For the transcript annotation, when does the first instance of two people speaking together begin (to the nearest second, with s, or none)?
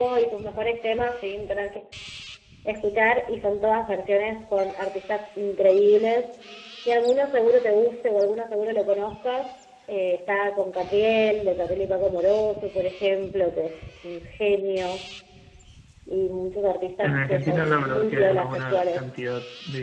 17 s